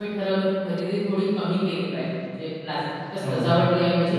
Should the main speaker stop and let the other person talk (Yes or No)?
No